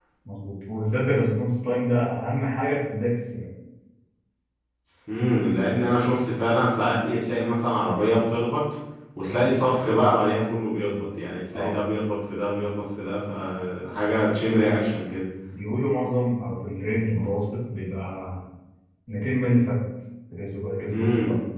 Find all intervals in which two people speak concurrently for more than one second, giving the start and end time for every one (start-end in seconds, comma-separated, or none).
none